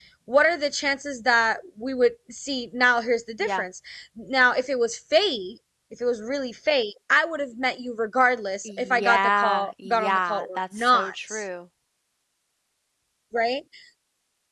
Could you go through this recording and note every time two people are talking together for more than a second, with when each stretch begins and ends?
8.7-11.4

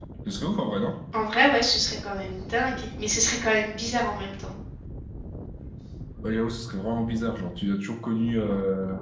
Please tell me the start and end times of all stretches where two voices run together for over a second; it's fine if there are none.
none

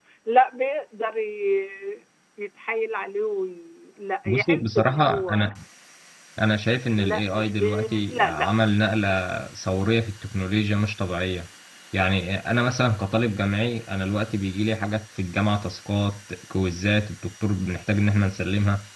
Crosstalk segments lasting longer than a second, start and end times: 4.2-5.5, 7.0-8.5

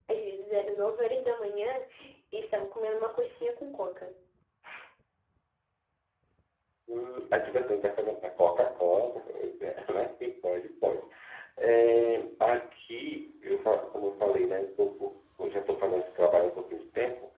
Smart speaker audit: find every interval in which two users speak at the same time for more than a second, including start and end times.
none

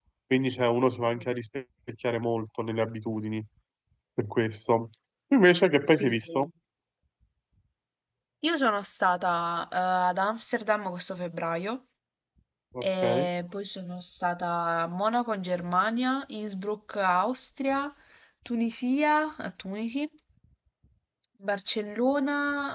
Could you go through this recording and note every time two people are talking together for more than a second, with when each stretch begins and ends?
none

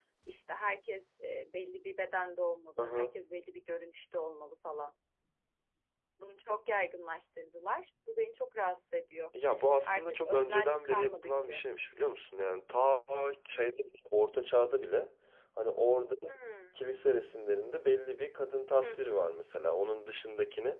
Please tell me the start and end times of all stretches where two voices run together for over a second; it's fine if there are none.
9.8-11.7

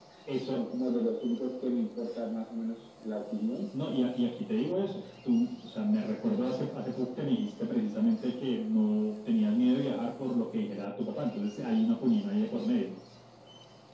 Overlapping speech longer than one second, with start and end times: none

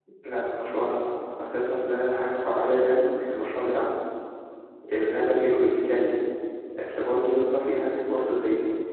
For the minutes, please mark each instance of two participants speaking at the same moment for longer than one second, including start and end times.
none

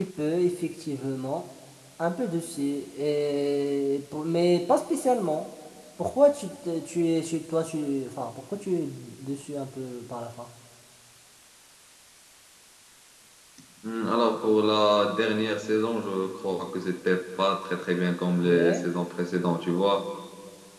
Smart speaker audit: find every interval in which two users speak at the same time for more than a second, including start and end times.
none

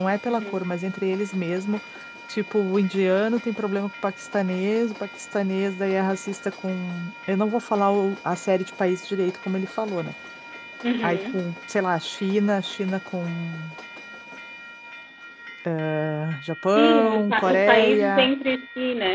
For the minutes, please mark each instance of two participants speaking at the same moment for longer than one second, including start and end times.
16.8-18.3

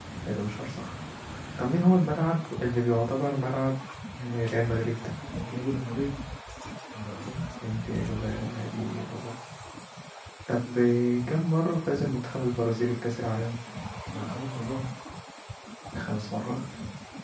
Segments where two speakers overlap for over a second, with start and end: none

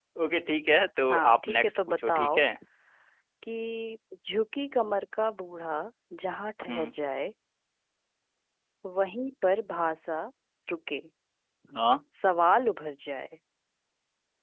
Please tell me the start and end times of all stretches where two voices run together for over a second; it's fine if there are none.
1.1-2.4

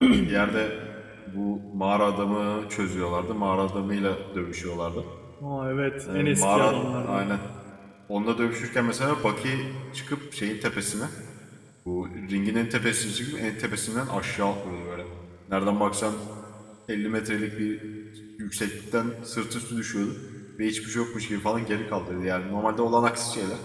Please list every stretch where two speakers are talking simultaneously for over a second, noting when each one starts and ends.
6.1-7.3

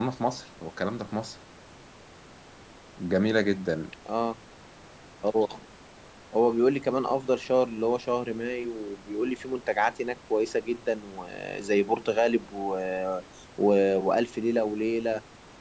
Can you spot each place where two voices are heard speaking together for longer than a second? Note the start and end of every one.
none

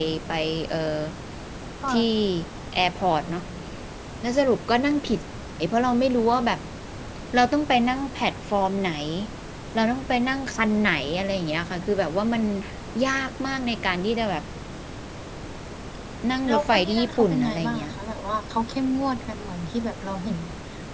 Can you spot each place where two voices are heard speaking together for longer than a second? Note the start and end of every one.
16.5-17.9

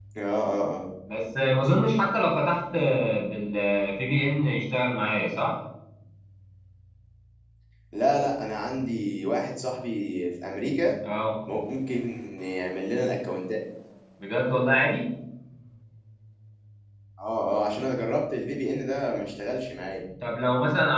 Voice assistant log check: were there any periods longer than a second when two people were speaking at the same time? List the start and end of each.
none

